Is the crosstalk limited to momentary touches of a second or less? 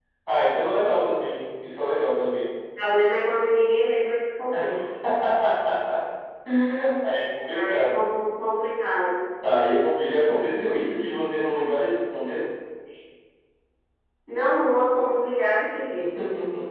Yes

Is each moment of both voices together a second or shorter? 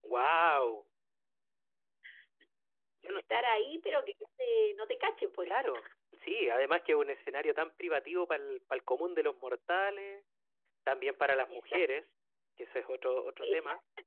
Yes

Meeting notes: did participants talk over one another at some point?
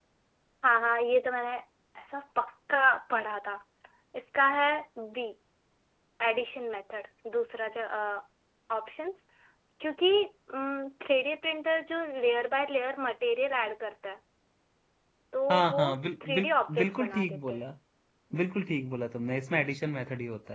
Yes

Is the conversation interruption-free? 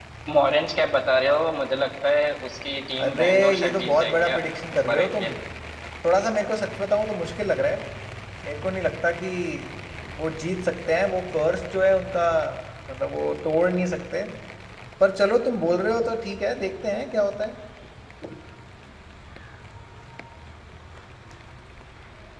No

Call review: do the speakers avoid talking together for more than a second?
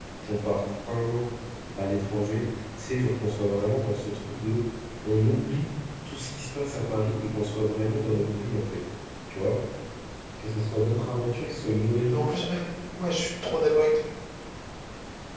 Yes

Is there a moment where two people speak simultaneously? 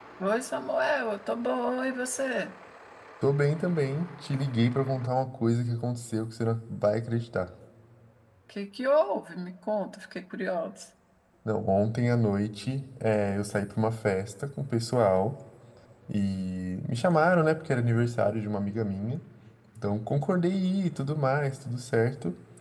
No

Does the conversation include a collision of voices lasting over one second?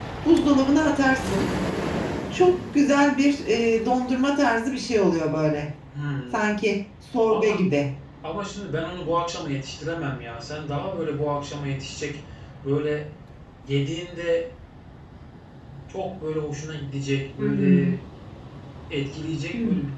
No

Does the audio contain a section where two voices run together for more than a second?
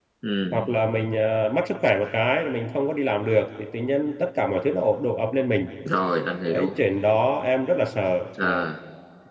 No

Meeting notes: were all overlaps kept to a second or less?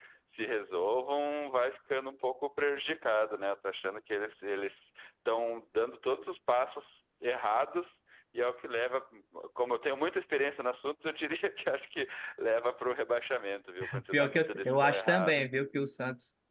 No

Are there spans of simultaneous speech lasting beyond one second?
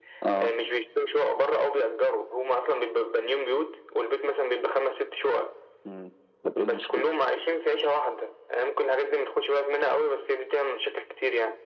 No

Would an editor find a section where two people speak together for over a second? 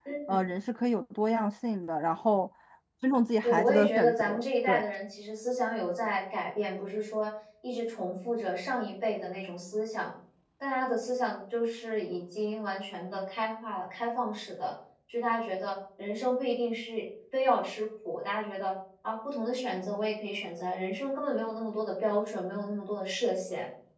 Yes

